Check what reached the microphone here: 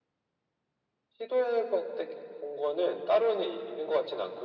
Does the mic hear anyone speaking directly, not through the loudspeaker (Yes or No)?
No